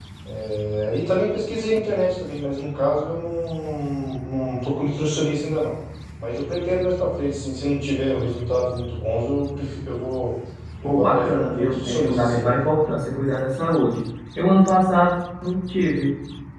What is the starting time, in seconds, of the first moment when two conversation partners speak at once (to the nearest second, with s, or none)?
11 s